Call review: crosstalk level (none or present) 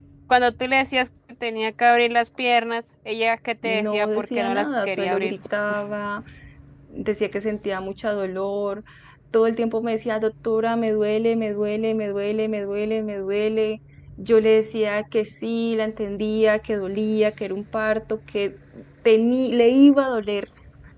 present